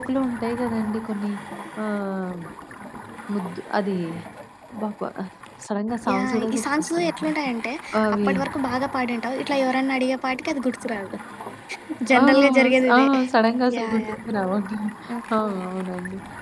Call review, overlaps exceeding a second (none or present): present